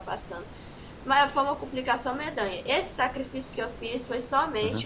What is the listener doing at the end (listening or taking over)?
listening